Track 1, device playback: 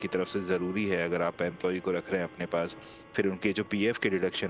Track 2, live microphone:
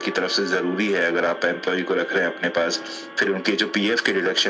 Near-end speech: none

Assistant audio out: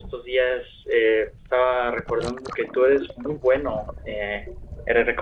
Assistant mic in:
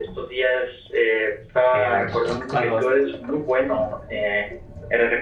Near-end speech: present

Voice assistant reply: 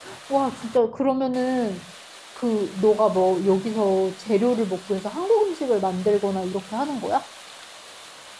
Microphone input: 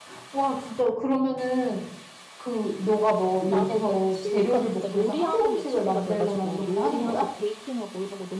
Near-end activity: present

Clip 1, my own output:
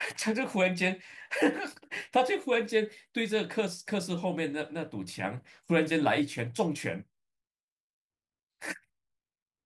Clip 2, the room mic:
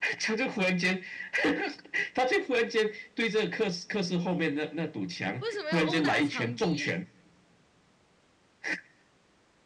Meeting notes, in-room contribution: present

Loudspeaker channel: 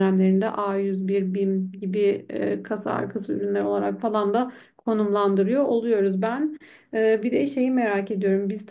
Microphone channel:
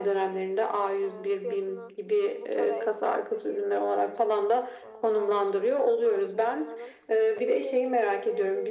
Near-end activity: present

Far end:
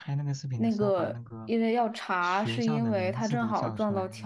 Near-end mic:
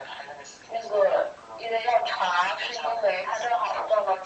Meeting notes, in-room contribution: none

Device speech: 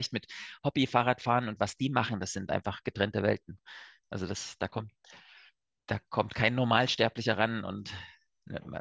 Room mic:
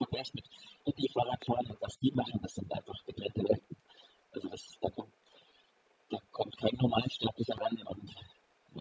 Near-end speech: none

